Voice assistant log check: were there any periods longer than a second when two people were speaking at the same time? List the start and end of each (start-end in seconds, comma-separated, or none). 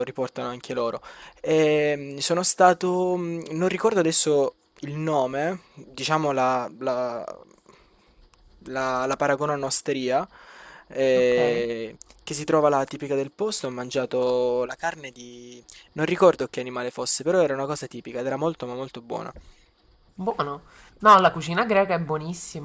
none